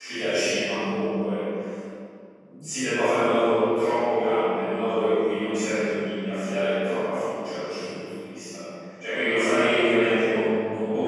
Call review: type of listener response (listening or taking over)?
listening